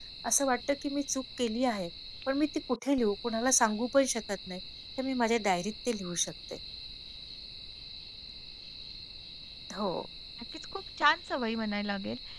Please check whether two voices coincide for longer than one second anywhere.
No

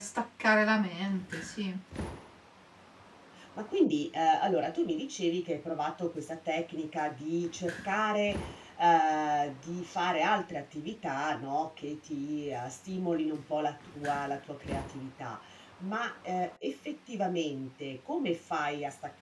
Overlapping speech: No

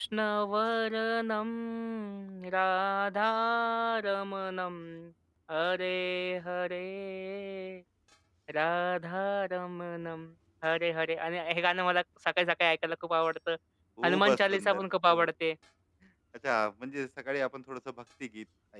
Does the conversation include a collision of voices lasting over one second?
Yes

